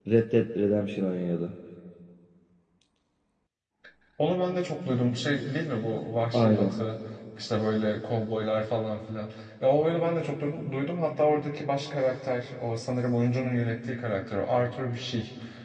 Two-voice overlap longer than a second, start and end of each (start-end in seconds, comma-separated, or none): none